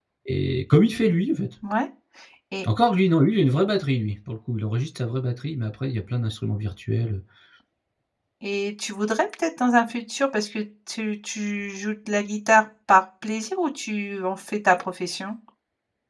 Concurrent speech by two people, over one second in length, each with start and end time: none

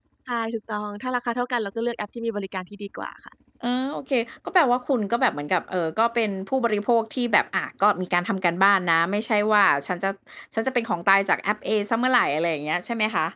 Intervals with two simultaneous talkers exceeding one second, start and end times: none

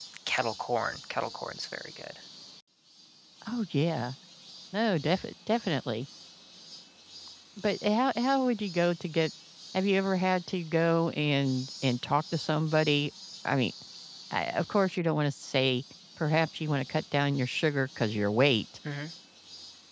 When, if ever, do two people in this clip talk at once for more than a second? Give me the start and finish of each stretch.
none

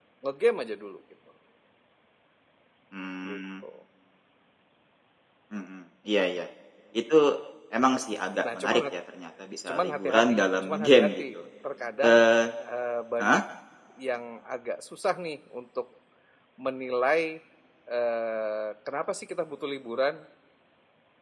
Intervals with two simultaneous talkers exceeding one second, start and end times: 9.7-11.2

